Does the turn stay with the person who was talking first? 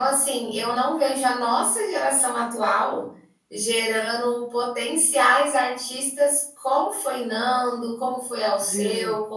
Yes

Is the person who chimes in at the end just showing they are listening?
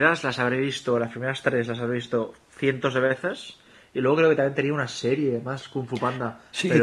No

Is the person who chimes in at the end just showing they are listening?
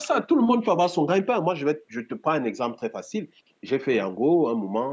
Yes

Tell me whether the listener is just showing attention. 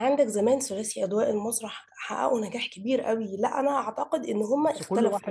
No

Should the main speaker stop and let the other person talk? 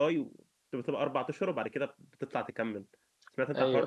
Yes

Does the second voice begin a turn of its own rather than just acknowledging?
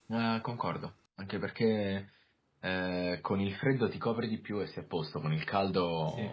No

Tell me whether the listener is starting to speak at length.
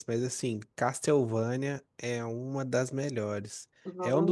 No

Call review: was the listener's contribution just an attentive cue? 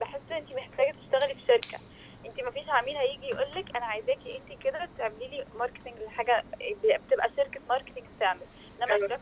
Yes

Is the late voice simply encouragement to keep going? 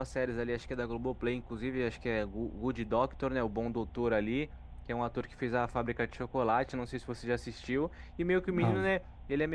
Yes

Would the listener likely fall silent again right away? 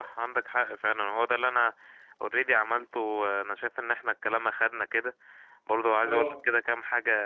Yes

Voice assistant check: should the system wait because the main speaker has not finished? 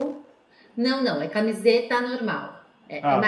Yes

